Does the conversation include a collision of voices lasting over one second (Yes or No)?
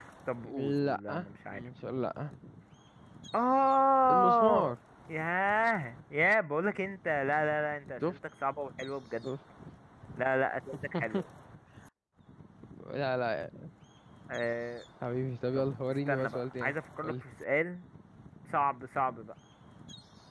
Yes